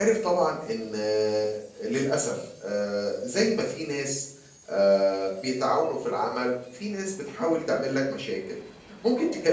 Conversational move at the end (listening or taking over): listening